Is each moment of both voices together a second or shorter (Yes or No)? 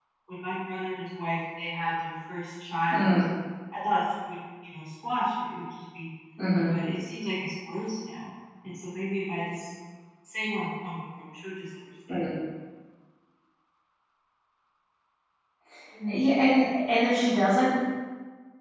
Yes